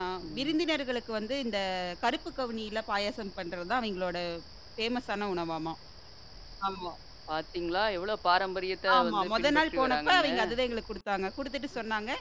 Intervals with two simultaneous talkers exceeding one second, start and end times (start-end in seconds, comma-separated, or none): 9.0-10.3